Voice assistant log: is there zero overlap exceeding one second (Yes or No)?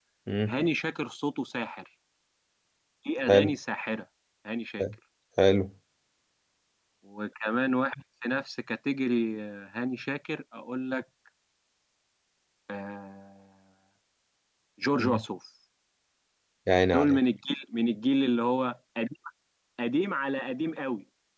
Yes